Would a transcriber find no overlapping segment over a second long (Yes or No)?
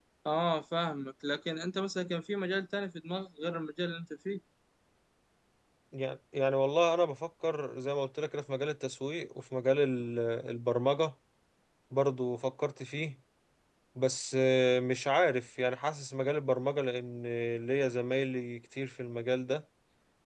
Yes